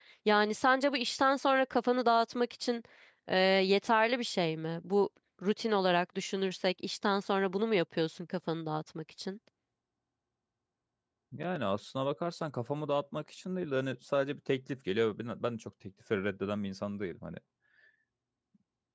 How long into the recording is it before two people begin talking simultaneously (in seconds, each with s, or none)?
none